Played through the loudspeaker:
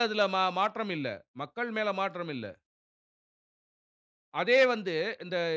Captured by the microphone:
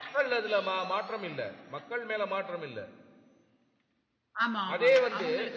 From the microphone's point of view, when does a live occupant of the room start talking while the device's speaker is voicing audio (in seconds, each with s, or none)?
4.4 s